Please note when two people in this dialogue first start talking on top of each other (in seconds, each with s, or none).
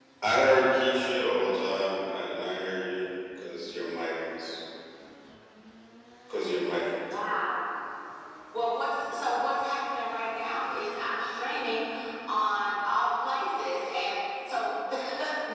none